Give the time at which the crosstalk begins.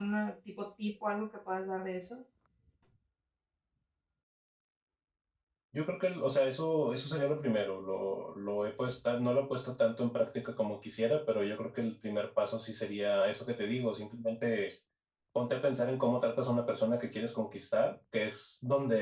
none

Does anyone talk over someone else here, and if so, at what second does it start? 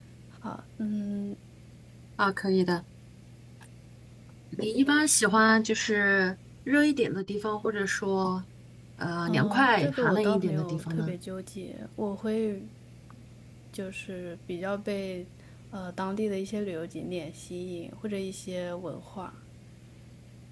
9.2 s

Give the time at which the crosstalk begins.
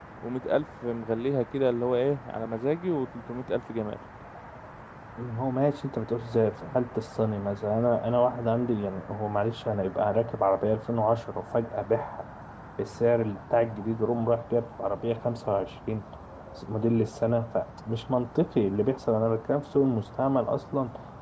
none

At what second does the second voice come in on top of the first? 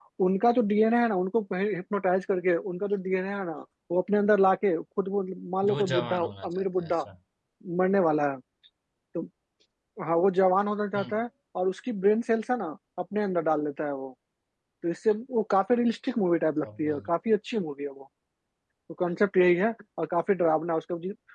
5.7 s

